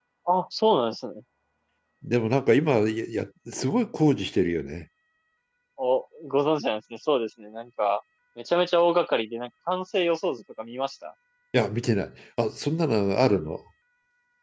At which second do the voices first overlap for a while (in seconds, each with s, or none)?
none